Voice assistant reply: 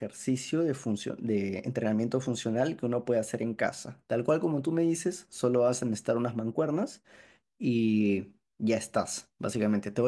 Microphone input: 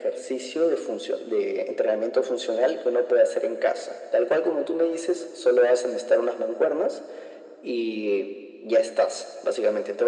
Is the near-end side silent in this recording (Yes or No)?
Yes